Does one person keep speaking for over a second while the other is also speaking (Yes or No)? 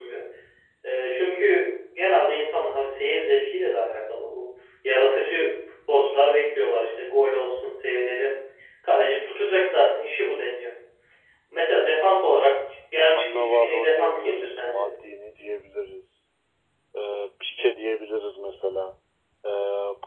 Yes